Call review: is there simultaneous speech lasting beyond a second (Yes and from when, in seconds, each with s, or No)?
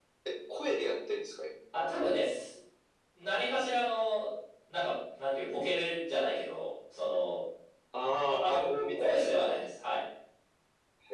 Yes, from 8.3 s